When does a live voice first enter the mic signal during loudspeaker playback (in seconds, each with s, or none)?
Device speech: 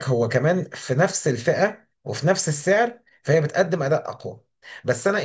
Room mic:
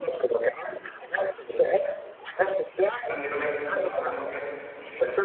2.9 s